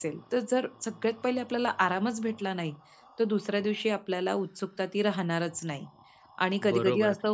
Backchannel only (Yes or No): No